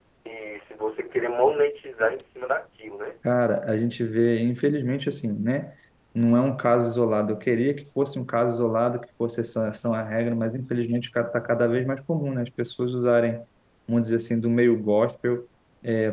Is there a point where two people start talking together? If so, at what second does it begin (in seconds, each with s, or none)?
none